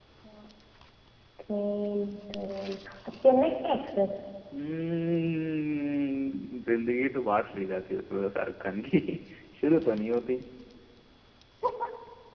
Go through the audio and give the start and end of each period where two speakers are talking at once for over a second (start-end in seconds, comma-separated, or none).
none